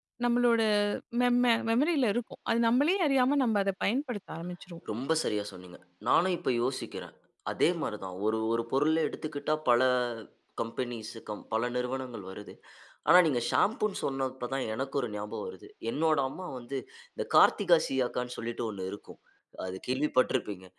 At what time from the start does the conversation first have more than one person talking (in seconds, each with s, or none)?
none